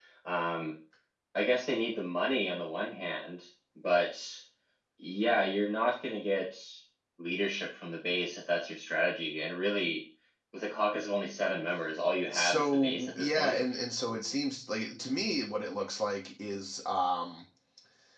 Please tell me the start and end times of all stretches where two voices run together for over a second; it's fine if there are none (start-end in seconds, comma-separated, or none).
12.3-13.6